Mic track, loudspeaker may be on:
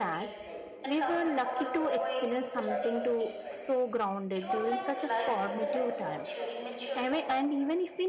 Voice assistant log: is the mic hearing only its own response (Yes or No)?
No